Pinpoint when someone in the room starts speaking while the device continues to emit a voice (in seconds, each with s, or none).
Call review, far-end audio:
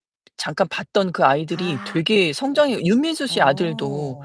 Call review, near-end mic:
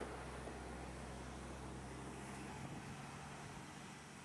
none